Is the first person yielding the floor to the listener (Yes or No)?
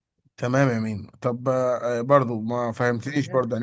No